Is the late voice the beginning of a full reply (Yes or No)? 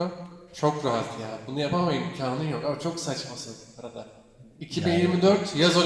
No